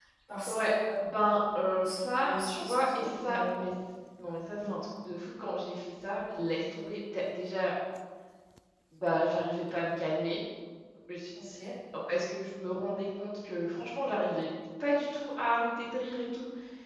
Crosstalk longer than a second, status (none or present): present